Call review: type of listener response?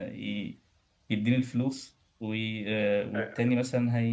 listening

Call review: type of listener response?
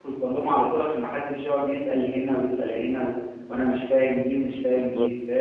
listening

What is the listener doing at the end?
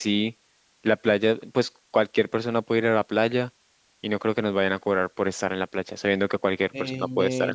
taking over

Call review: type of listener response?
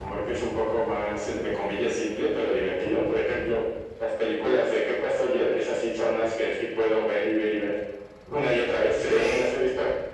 listening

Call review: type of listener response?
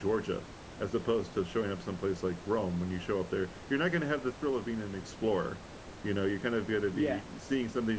listening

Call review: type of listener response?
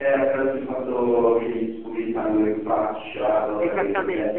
taking over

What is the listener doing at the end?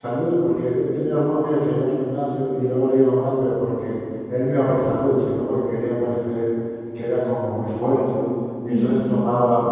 listening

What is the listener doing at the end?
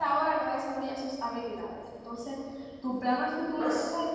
listening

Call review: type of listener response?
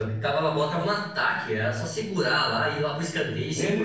taking over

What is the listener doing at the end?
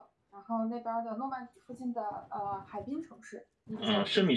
taking over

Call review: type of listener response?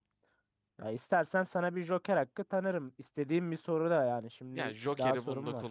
taking over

